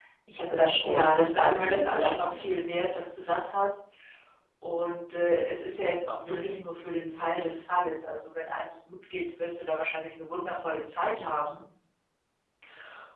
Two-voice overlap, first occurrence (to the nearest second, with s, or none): 1 s